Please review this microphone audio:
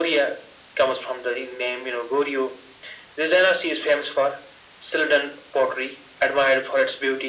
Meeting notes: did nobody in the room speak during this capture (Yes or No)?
Yes